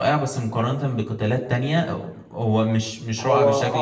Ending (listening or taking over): taking over